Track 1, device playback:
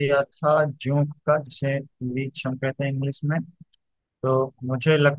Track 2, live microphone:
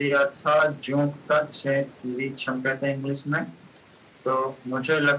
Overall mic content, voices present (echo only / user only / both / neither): echo only